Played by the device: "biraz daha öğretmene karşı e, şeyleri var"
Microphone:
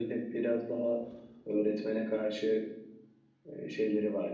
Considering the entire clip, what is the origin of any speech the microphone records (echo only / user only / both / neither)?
echo only